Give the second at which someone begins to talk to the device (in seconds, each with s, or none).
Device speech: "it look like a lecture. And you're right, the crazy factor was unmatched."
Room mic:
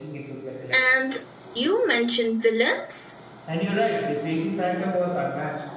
0.7 s